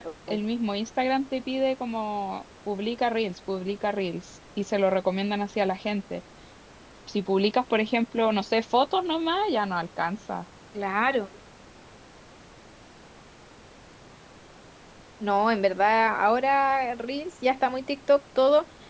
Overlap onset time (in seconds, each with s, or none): none